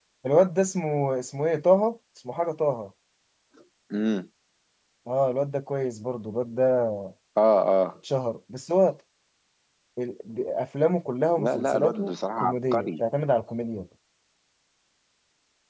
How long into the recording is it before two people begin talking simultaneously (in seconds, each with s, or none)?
11.4 s